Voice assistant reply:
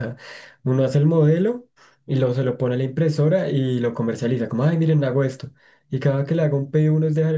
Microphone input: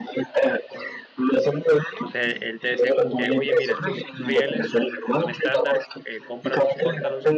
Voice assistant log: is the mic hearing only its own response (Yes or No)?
No